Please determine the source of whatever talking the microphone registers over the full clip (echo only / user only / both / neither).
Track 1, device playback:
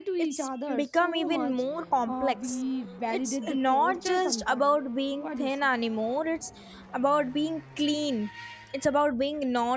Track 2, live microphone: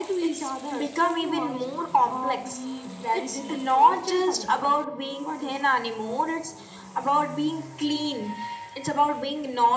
echo only